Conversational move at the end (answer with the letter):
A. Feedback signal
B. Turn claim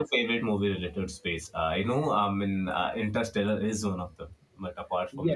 B